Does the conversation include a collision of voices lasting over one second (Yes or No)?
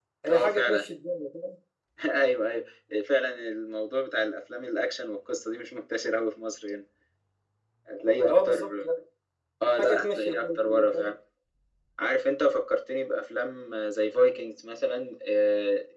Yes